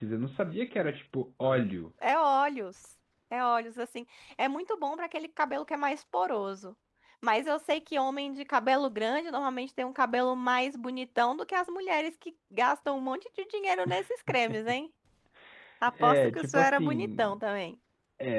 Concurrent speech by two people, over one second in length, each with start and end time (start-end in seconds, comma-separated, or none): 16.0-17.3